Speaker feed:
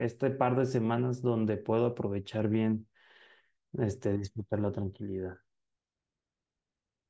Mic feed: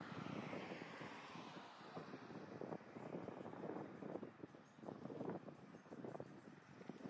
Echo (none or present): none